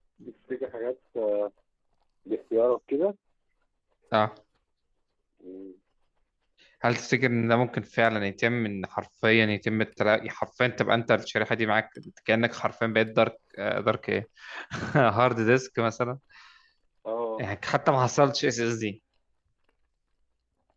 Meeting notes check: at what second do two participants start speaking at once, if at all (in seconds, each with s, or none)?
none